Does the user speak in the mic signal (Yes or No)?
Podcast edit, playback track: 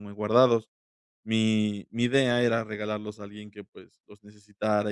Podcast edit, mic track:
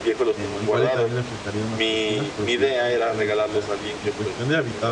Yes